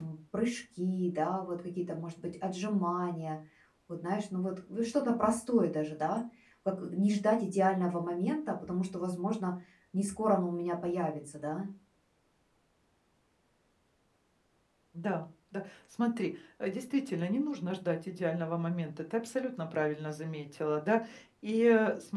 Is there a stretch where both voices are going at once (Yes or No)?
No